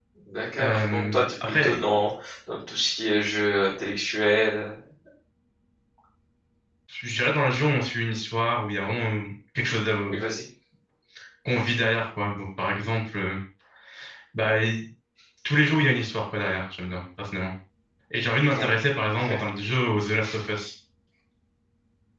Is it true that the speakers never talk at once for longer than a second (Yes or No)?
No